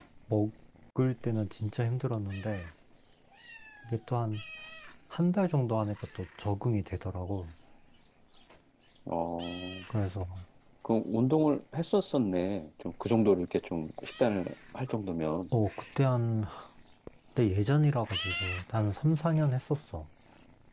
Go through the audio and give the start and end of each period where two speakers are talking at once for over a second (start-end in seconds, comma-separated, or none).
none